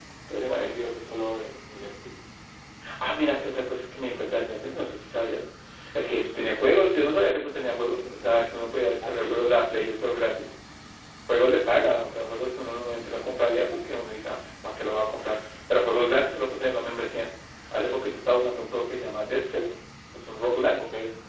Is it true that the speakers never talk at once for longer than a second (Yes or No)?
Yes